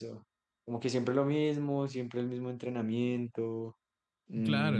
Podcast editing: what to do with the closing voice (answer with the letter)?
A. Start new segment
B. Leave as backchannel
A